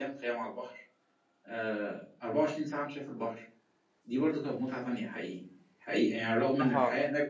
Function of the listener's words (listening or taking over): listening